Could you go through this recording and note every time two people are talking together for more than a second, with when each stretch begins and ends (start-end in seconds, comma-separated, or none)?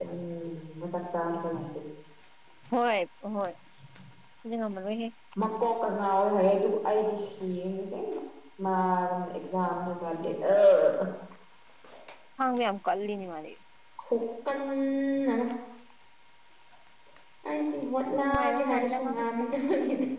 18.1-19.3